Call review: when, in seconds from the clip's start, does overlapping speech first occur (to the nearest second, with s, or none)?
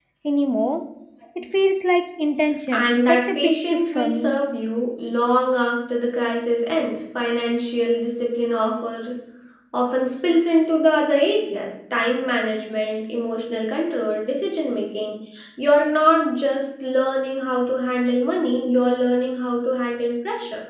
3 s